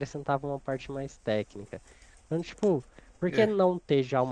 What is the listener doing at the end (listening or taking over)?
listening